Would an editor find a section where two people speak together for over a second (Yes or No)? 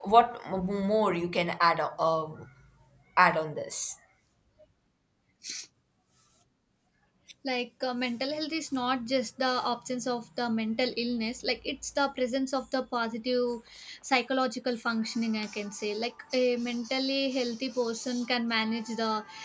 No